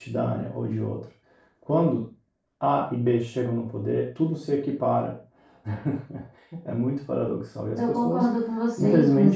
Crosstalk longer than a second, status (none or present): none